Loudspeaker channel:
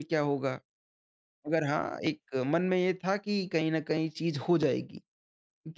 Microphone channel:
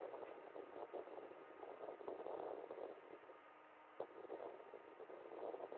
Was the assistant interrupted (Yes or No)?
No